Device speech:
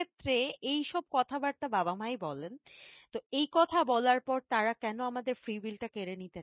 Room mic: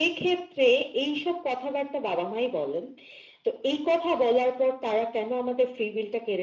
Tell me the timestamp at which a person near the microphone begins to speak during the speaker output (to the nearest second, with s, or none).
none